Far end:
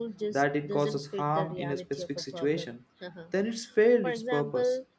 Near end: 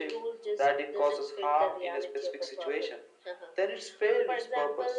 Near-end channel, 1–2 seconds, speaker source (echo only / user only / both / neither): echo only